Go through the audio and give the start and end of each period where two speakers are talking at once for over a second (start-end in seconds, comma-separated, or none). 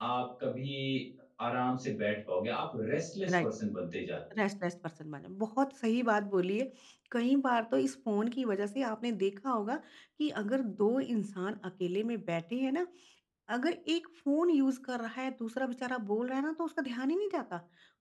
none